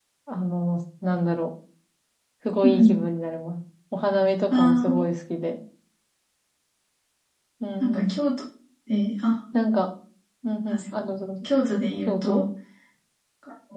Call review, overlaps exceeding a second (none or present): none